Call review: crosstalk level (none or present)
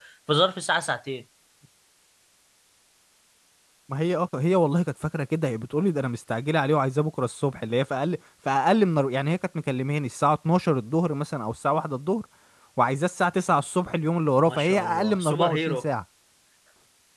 present